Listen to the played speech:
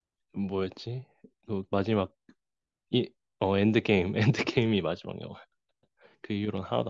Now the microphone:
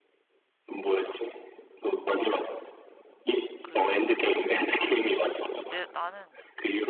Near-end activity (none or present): present